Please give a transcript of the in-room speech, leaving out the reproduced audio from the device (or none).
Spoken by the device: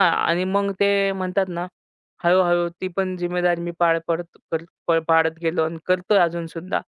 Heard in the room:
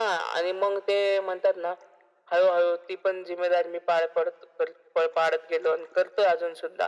none